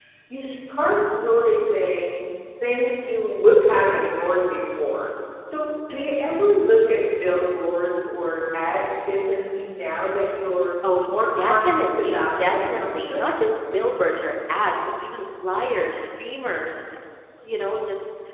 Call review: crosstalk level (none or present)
present